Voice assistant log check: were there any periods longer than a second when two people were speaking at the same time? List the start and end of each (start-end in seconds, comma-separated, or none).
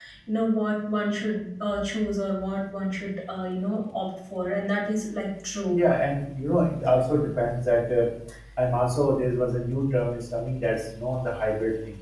none